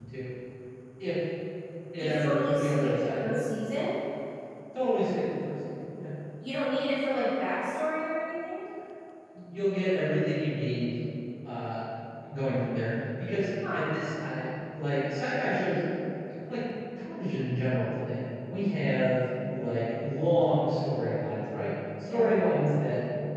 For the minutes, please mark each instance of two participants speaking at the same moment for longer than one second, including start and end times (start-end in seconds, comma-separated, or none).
2.0-3.4